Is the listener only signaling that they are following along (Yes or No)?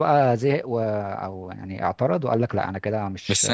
No